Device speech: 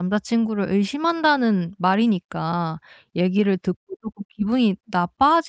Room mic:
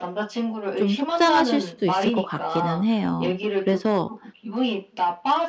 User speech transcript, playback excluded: 좀 속상하실 수도 있을 것 같기는 해요. 그래서

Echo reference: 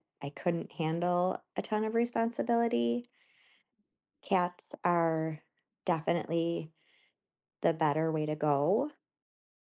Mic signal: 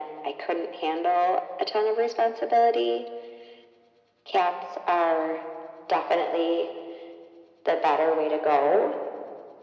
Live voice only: none

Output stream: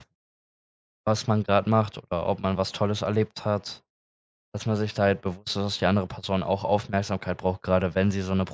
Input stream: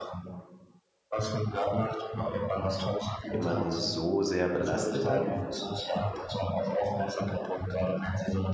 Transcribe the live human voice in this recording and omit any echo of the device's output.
jemanden so sehr belastet dann?

